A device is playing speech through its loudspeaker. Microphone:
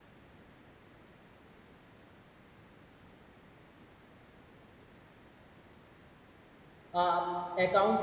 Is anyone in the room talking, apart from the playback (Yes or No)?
Yes